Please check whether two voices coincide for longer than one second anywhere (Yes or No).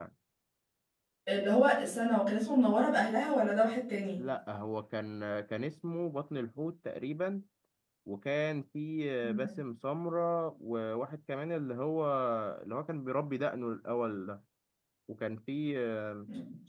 No